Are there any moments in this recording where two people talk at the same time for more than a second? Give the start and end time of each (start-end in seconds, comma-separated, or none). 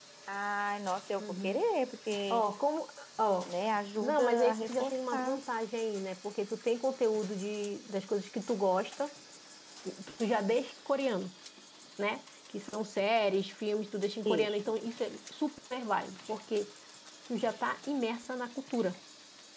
4.0-5.4